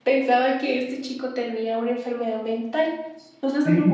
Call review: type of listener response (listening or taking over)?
listening